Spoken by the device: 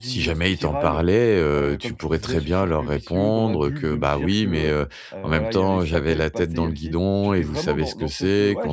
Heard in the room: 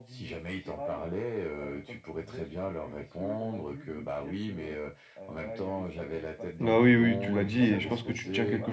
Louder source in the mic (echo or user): user